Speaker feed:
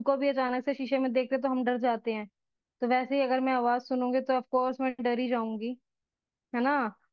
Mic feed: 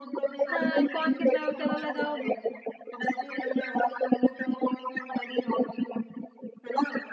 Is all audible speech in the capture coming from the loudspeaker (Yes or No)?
No